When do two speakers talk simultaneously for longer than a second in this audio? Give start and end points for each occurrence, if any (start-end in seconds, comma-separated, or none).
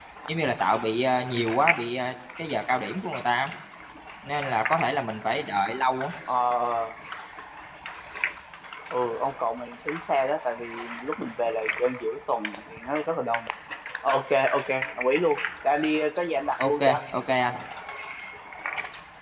none